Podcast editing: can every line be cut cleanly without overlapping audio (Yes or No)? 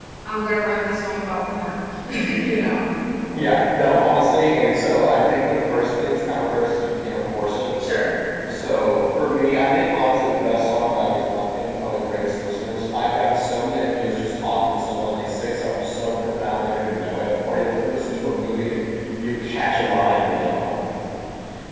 Yes